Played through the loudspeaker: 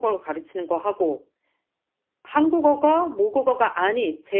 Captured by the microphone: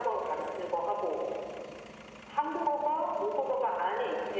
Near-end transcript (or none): none